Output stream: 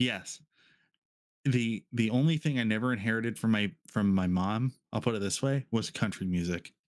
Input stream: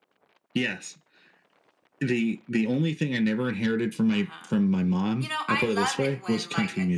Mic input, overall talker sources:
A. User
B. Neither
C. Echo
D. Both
D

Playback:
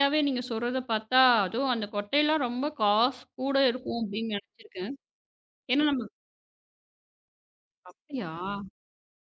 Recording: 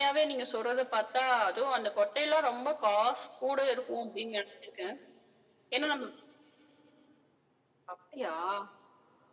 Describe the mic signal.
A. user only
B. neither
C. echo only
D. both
C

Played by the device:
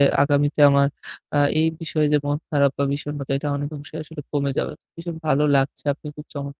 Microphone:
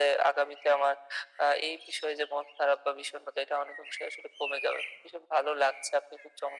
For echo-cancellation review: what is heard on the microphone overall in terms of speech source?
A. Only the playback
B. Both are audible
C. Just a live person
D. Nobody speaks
A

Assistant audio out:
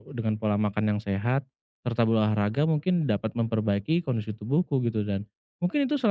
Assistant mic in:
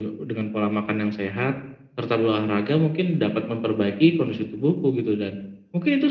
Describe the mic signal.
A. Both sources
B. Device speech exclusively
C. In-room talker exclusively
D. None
B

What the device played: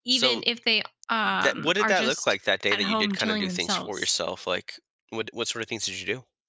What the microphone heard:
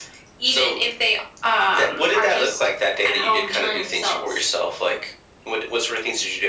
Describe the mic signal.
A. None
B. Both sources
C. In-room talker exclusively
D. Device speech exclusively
D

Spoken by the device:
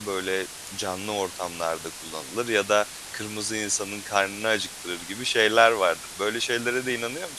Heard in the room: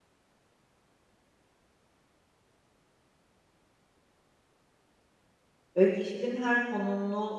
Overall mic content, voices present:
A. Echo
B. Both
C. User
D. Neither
C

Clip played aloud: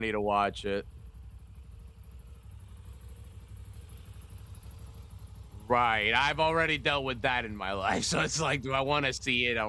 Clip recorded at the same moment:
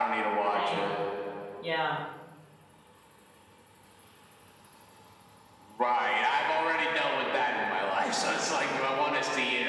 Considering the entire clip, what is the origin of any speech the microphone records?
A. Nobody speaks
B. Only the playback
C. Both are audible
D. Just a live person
C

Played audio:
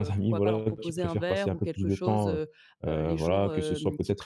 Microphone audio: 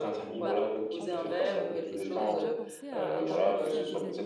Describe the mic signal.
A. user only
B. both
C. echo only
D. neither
B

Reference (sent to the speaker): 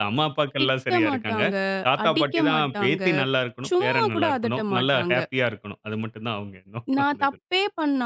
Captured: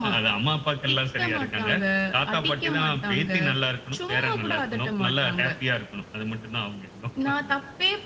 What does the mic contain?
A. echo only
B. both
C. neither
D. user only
A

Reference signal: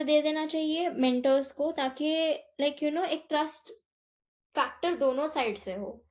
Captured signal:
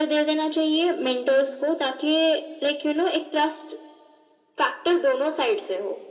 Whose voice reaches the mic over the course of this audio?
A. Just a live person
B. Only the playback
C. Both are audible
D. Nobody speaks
B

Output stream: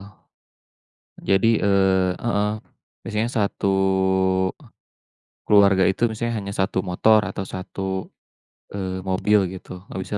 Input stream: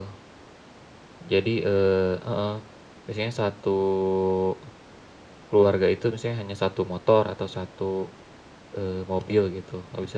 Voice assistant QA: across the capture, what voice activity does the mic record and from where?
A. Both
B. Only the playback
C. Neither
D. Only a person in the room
B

